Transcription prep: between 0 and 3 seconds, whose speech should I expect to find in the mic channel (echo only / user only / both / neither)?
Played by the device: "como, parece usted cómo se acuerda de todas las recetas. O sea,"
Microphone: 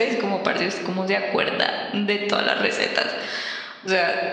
echo only